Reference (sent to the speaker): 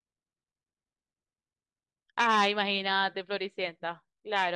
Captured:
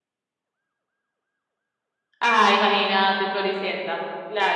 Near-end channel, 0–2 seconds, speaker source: neither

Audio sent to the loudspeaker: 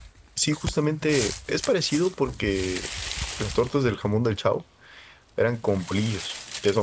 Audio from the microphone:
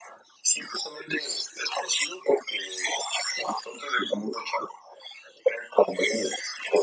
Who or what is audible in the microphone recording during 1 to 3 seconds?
echo only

